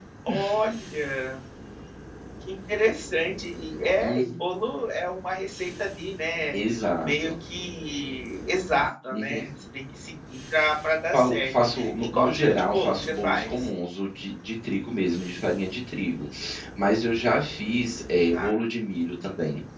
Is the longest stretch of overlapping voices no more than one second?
No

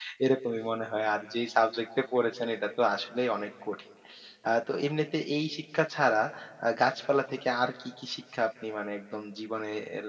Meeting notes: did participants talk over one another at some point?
No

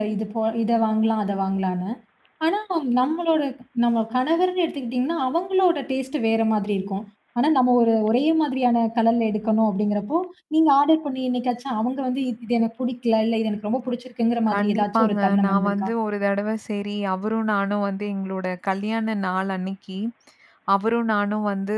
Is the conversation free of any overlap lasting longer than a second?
No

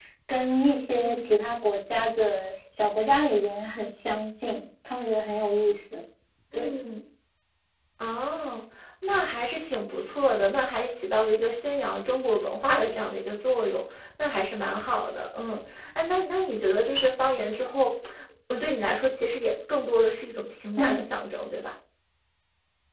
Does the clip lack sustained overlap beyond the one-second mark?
Yes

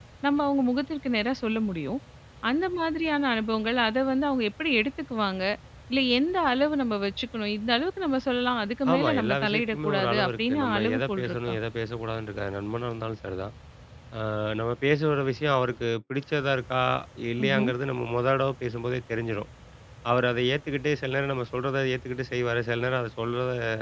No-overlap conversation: No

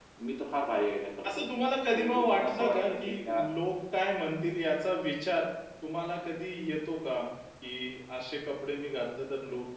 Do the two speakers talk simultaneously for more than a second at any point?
Yes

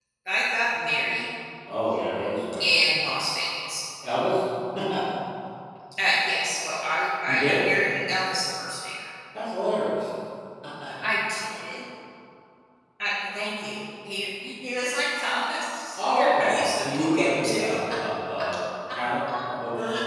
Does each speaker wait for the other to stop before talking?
No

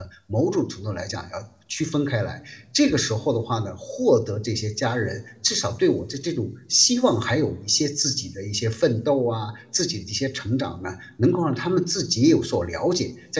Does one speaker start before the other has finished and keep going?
No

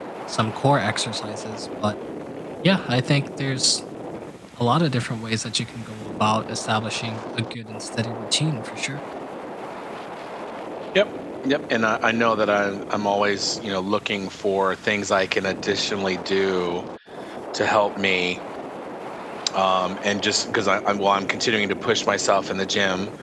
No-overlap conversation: Yes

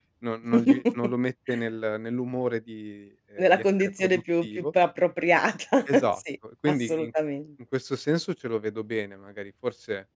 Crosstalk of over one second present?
Yes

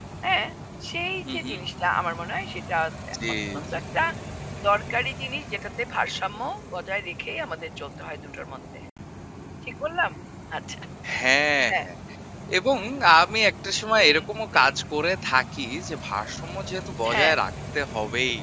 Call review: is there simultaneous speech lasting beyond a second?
No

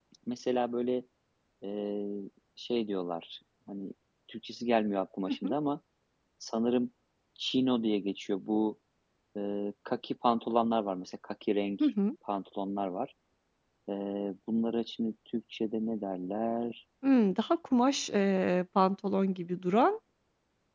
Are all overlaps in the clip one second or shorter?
Yes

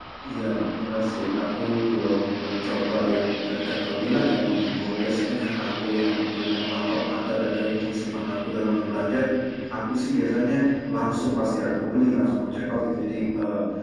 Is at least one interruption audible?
No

